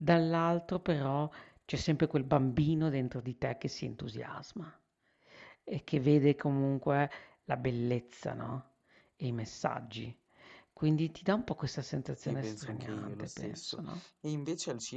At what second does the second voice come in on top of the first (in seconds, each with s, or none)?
12.2 s